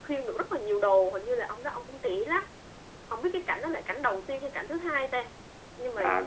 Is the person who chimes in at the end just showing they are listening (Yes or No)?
No